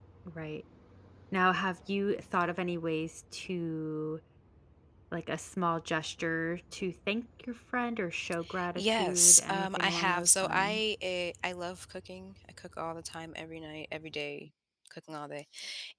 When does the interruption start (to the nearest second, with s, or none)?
9 s